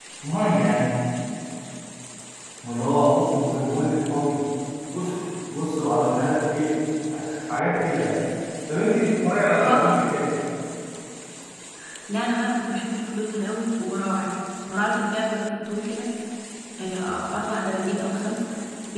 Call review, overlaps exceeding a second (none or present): none